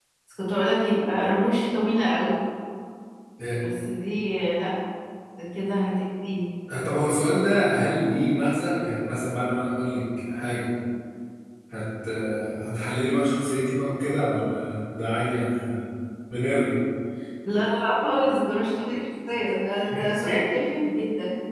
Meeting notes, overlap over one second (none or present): none